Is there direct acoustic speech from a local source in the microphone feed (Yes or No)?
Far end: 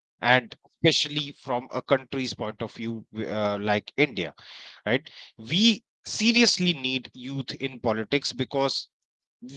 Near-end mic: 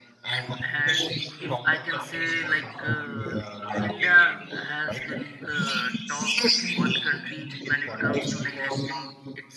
Yes